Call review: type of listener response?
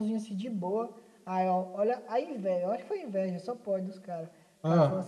listening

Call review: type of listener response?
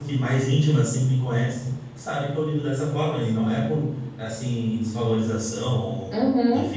listening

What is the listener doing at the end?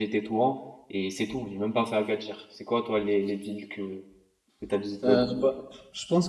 taking over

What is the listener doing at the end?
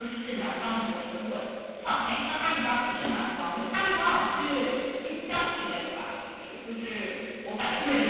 taking over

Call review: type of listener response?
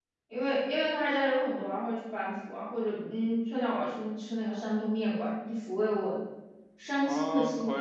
taking over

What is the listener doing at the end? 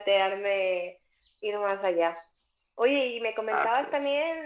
listening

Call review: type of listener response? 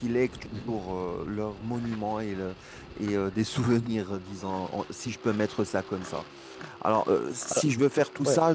listening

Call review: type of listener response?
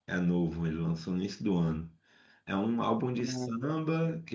listening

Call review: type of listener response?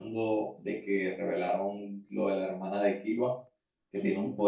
listening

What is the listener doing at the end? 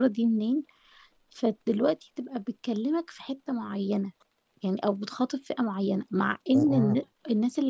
listening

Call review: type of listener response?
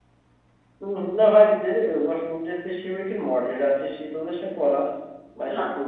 listening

